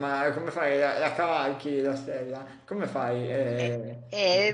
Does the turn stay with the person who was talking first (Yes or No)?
No